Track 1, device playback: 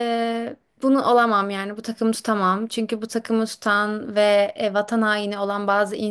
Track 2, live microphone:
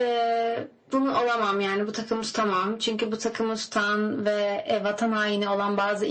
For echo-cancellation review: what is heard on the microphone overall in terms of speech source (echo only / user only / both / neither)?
echo only